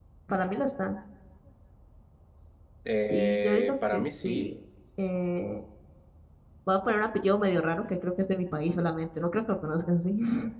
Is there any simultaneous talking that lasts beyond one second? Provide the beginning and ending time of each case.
3.1-4.5

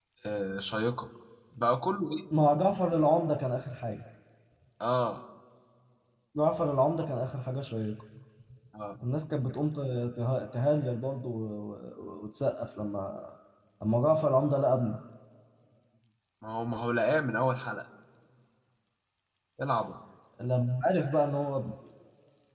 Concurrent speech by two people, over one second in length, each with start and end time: none

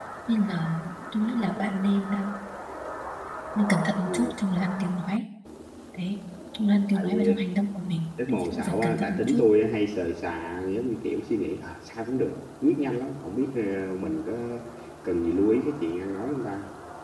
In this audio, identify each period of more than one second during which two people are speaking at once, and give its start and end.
8.3-9.5

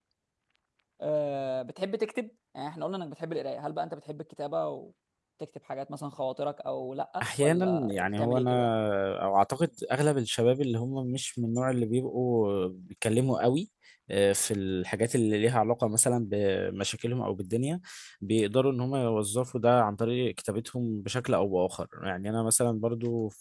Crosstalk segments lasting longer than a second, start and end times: 7.2-8.5

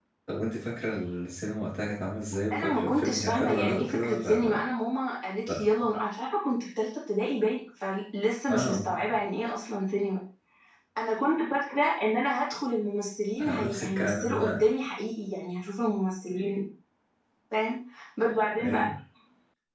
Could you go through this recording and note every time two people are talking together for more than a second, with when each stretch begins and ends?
2.5-4.4, 13.4-14.6

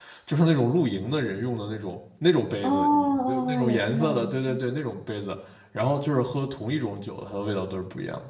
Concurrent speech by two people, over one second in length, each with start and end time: 2.6-4.6

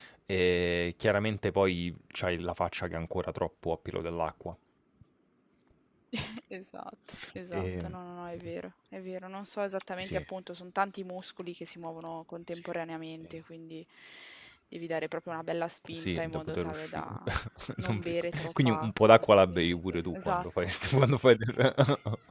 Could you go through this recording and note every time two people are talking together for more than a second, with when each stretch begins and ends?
15.9-17.2, 18.6-20.7

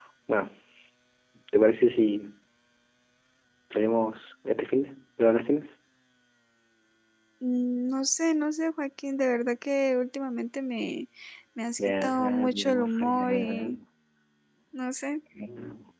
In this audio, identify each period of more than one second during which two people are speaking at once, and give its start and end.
11.8-13.8

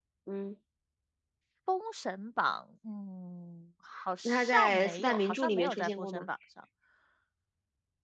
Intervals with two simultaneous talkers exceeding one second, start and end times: 4.2-6.3

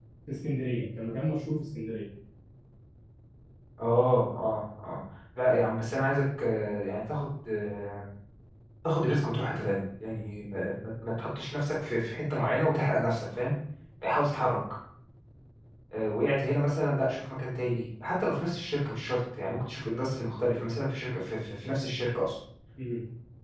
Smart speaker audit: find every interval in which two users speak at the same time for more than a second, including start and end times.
none

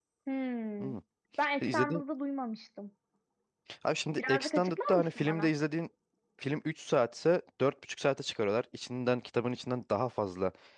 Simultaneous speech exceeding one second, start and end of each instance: 4.2-5.5

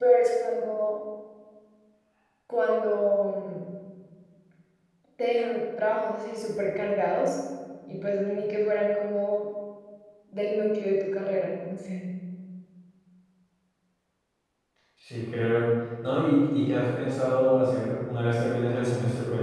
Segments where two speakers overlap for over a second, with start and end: none

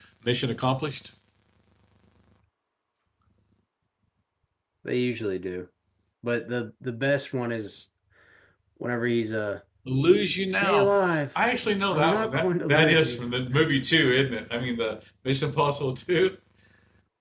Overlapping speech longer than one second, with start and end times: 11.9-13.2

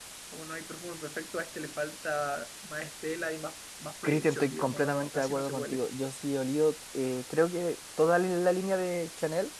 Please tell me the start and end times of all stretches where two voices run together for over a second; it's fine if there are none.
4.0-5.8

